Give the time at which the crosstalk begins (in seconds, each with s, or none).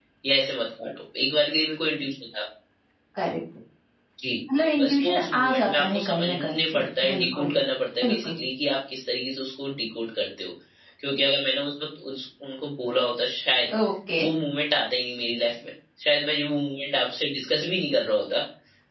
4.8 s